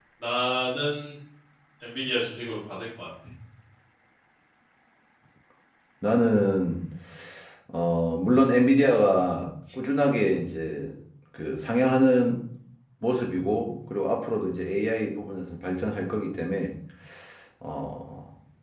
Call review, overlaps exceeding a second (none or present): none